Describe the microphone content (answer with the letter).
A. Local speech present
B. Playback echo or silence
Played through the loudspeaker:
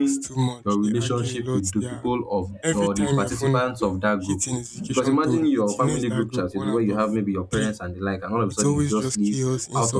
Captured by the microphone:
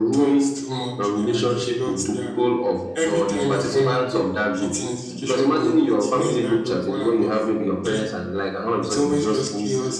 B